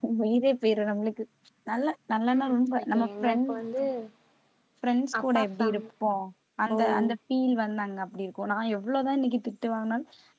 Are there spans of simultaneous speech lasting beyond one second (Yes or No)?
Yes